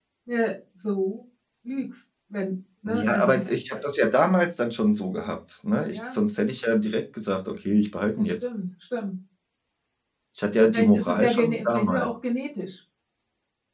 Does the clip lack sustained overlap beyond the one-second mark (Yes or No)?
No